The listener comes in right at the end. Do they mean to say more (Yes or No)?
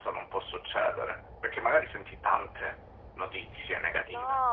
Yes